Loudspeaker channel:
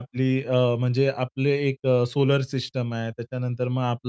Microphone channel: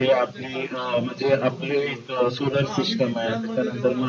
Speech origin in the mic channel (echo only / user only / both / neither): both